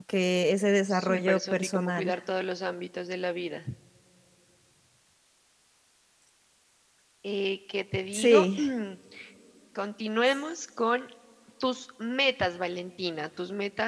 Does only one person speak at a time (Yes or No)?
No